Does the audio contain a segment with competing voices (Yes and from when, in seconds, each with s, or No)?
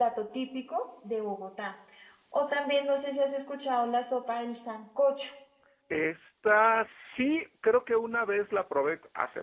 No